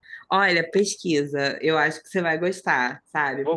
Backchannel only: Yes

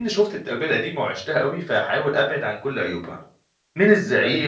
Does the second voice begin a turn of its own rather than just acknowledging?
No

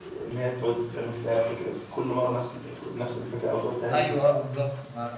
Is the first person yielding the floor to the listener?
Yes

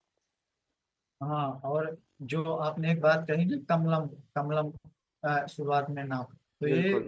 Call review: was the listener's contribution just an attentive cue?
Yes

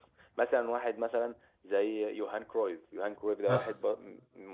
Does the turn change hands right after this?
No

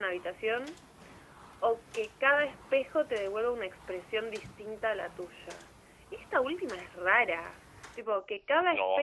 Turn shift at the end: Yes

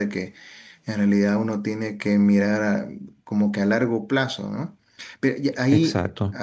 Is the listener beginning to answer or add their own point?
No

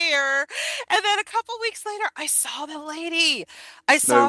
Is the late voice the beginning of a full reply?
No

